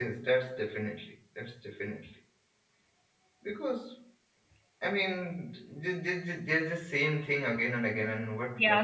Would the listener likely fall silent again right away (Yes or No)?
No